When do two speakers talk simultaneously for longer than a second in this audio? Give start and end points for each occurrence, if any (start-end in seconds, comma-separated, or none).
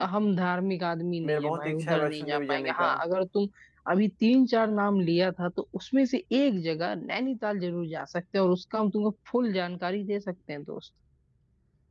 1.2-2.9